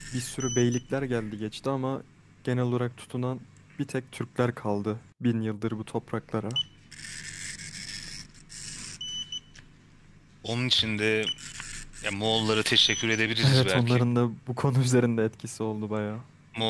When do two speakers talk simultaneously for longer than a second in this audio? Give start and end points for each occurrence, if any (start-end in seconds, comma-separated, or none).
none